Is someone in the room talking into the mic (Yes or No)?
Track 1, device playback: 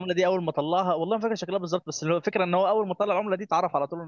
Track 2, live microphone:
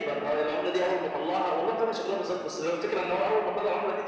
No